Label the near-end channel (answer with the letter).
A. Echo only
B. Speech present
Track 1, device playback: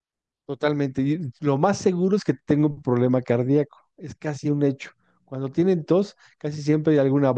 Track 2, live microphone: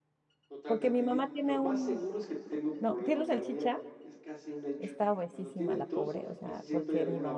B